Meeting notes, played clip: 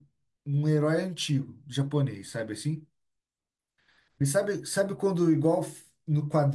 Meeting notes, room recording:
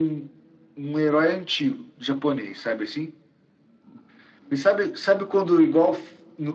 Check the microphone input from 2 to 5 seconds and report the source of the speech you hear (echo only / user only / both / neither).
echo only